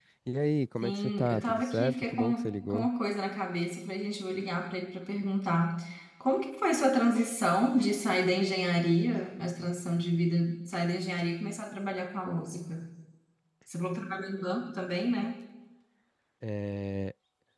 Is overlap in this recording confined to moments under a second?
No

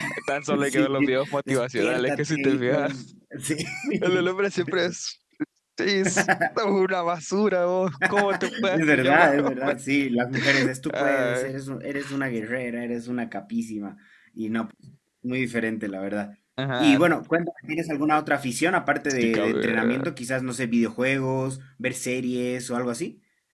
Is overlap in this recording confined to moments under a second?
No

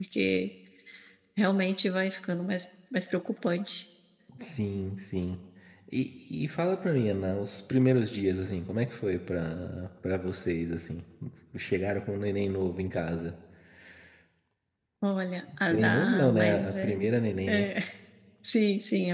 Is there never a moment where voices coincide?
No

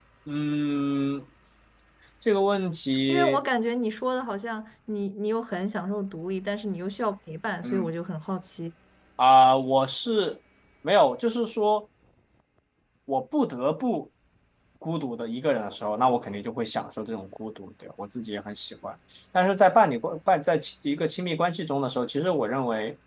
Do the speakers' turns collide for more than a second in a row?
No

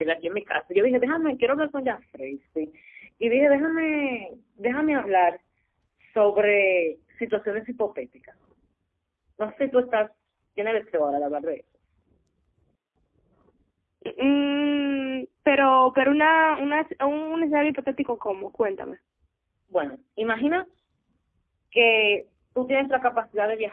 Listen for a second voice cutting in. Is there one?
No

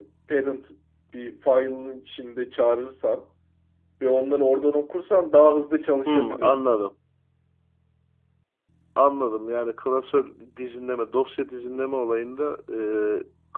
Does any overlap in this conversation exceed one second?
No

